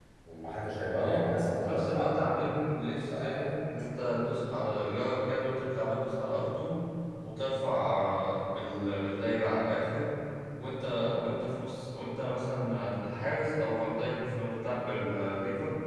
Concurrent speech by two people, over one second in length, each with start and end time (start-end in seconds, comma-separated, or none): 0.9-2.3